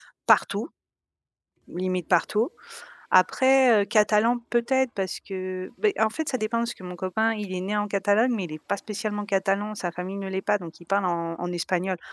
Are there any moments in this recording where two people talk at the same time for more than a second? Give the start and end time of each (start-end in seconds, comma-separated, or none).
none